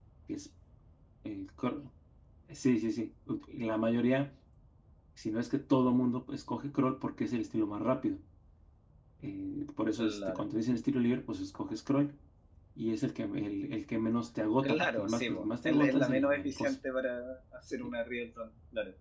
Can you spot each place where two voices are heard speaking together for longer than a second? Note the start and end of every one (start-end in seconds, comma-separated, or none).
14.6-16.7